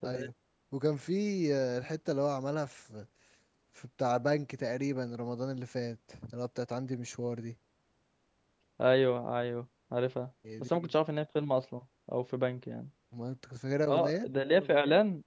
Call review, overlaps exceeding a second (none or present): none